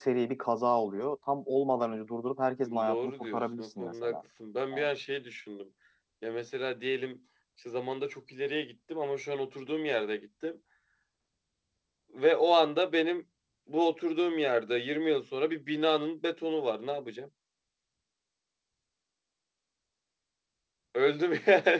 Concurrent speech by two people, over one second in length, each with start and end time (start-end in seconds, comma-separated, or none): 2.6-4.2